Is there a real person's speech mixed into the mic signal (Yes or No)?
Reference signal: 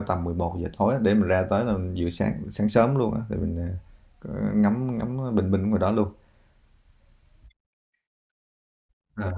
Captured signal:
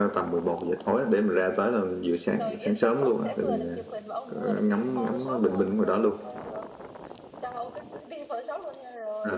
Yes